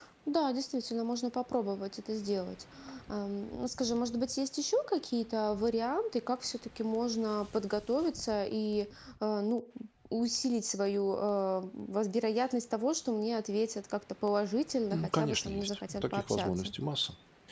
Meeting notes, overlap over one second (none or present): present